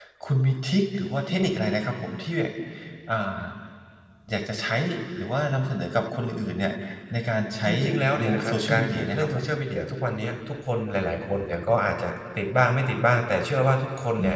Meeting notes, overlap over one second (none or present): present